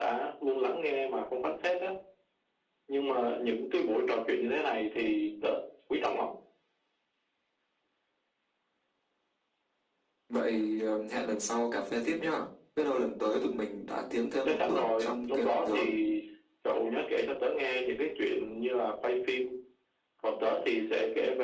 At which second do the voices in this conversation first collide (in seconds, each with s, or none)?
14.4 s